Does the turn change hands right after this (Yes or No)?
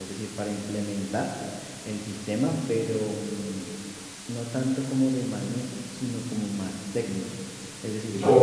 Yes